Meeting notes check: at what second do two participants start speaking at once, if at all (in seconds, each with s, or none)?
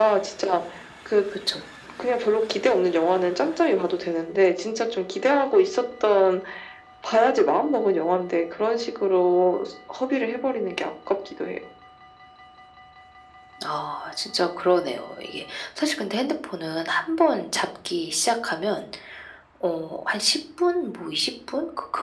none